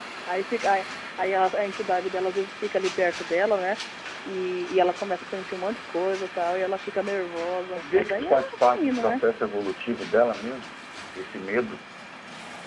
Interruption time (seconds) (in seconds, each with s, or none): 7.7 s